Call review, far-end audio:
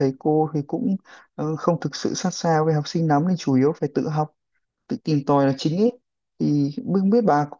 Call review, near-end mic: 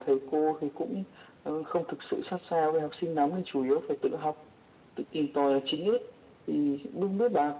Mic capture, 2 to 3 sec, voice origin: echo only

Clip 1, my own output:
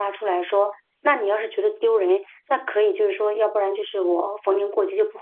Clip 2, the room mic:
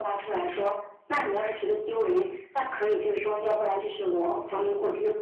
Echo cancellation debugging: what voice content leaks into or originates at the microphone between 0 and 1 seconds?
echo only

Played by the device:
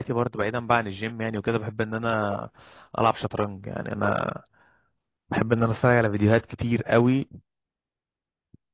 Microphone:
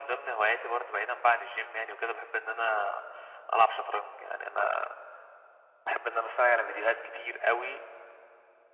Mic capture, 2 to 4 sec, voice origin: echo only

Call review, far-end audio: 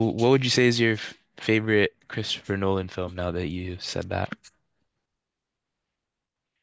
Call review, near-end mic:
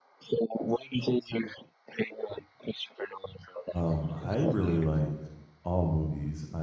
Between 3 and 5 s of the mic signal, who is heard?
both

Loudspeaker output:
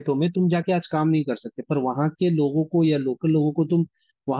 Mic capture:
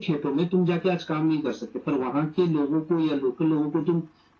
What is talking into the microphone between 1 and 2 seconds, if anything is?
echo only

